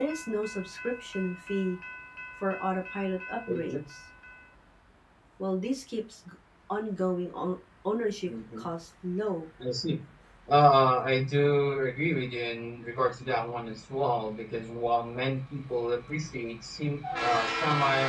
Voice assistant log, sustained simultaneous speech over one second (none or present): none